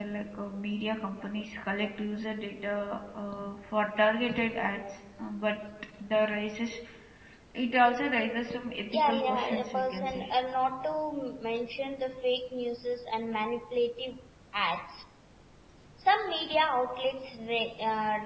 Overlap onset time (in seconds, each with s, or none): 8.9 s